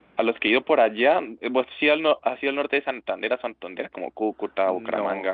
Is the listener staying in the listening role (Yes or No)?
No